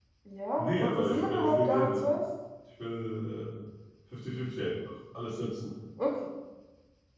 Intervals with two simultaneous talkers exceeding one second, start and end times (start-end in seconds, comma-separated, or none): 0.6-2.1